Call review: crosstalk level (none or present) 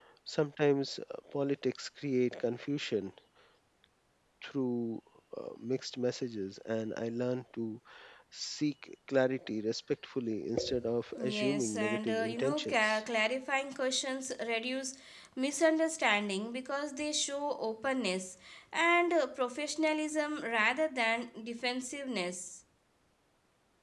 present